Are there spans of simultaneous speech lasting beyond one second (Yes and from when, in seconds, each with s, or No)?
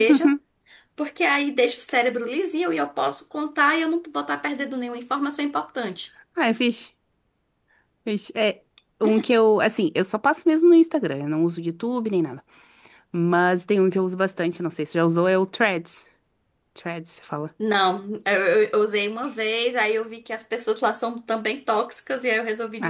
No